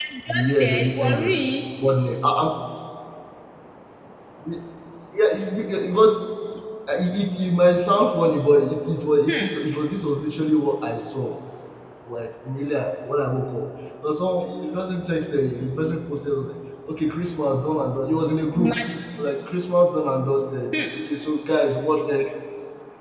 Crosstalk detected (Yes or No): Yes